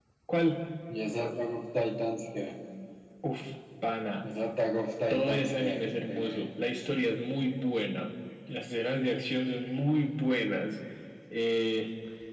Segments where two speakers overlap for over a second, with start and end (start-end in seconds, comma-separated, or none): 5.1-6.5